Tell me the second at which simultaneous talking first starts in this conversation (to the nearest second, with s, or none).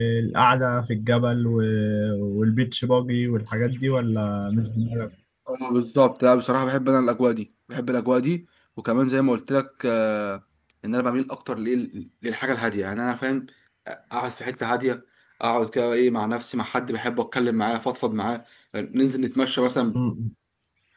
none